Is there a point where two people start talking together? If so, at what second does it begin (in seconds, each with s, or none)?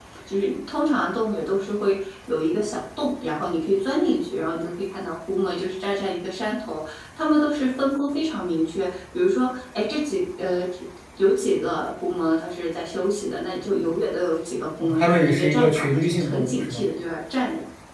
14.8 s